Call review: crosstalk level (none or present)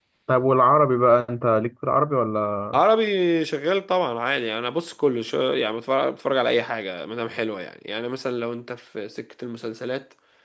none